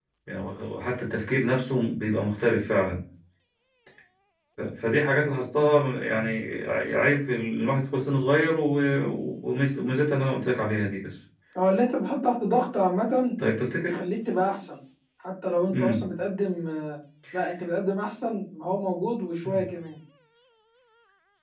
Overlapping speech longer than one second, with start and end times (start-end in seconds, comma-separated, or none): none